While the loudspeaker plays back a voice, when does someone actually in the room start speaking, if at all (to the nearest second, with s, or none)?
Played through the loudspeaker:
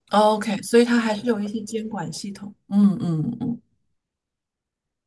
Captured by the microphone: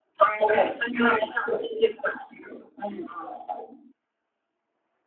none